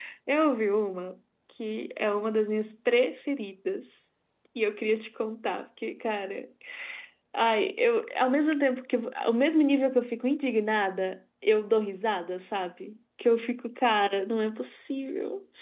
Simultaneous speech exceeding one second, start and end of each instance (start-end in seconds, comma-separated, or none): none